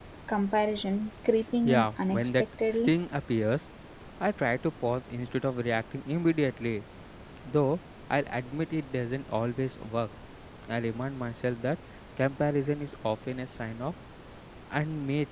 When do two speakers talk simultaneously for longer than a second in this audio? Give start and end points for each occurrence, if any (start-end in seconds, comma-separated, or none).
1.6-2.9